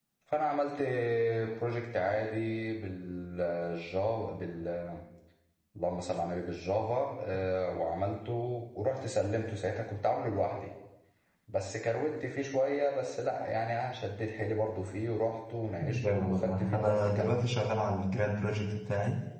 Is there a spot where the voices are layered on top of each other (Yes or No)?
Yes